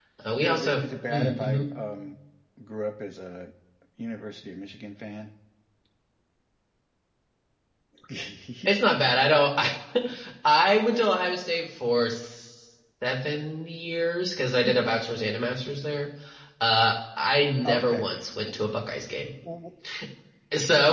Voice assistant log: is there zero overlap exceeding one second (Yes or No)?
No